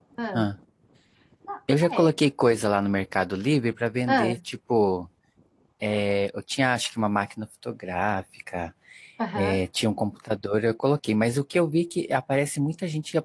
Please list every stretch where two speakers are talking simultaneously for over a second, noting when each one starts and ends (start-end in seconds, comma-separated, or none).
none